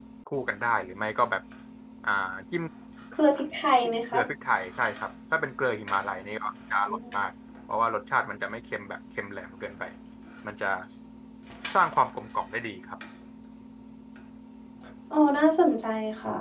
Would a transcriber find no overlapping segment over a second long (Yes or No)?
Yes